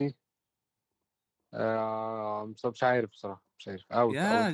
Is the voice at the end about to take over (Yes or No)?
Yes